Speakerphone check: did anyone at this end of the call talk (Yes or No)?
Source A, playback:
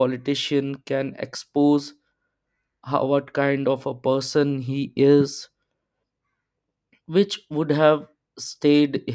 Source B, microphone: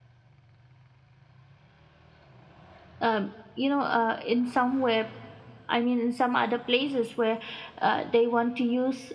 Yes